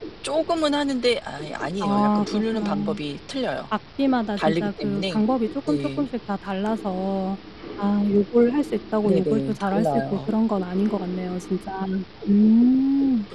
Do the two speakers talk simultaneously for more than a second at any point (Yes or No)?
Yes